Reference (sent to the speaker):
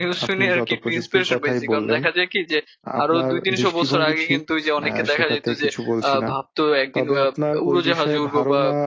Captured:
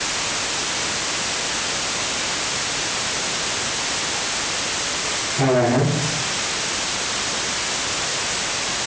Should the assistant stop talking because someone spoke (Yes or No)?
Yes